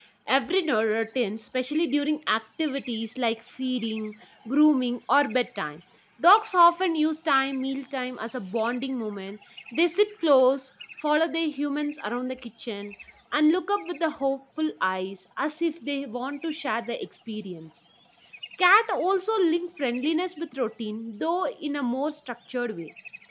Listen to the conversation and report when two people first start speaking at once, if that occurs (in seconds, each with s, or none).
none